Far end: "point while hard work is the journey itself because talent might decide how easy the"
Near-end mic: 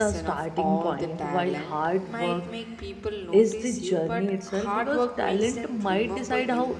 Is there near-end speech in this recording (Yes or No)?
Yes